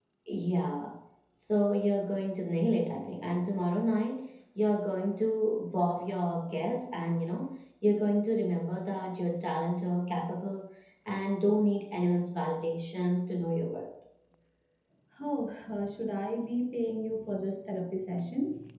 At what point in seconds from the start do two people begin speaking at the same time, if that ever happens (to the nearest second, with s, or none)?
none